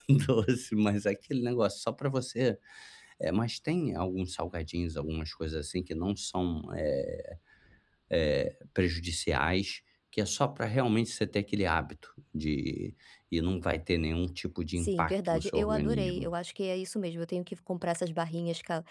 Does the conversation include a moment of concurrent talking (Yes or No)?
Yes